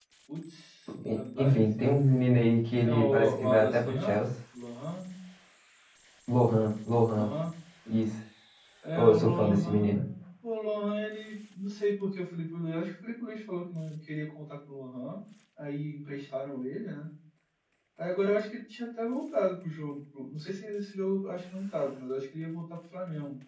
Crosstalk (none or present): present